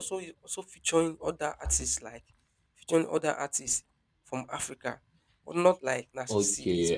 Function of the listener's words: taking over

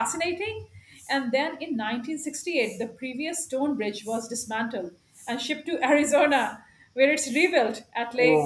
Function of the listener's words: taking over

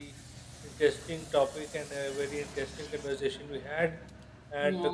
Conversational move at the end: listening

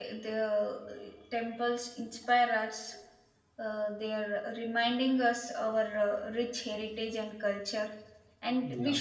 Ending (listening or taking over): listening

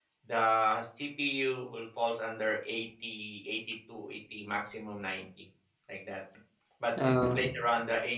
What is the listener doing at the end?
listening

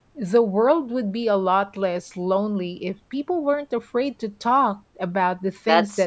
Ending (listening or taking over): taking over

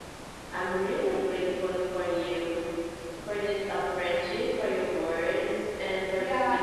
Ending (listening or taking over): taking over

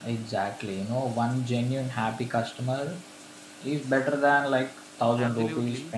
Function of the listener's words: taking over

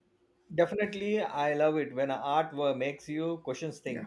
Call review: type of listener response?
taking over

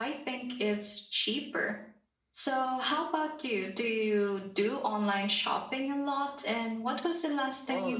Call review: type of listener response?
taking over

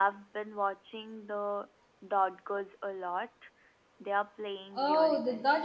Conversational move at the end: taking over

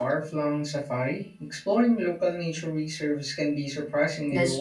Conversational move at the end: taking over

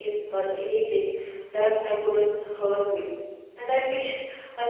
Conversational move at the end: listening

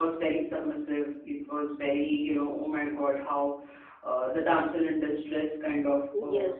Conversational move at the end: taking over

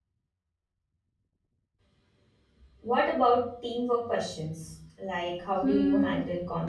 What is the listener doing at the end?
taking over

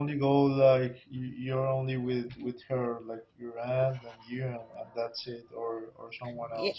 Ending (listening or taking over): taking over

